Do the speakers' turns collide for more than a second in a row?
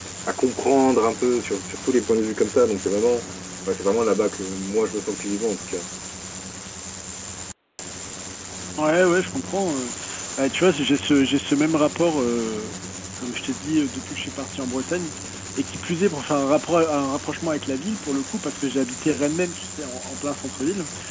No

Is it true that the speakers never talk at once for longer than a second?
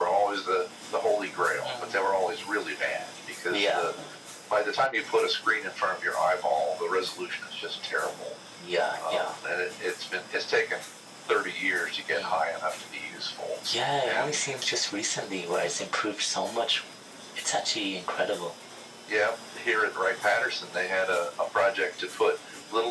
No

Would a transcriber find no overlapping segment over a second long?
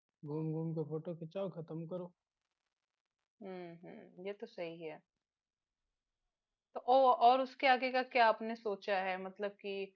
Yes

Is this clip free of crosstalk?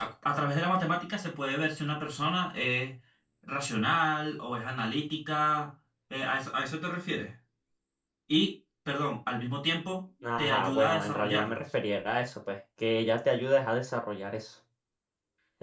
No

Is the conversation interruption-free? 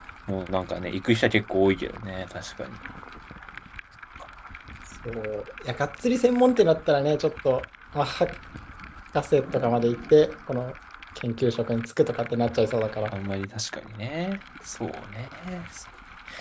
Yes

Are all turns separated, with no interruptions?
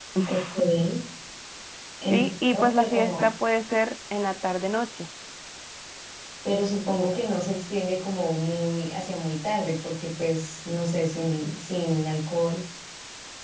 No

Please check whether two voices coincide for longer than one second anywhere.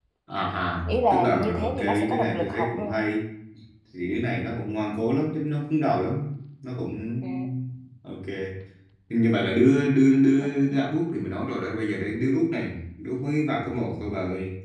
Yes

